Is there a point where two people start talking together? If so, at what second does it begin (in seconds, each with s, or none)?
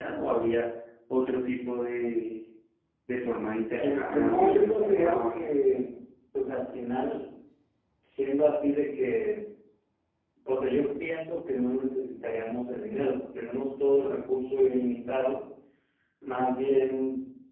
3.7 s